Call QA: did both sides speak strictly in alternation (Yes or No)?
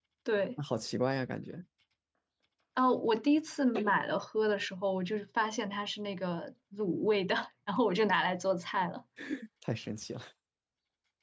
Yes